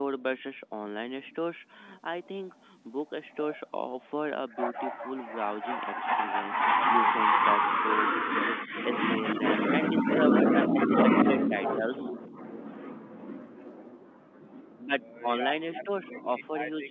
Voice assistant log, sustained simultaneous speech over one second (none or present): present